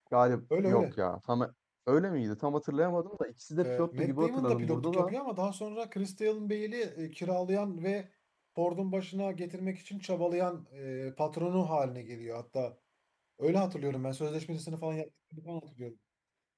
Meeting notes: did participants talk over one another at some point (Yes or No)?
Yes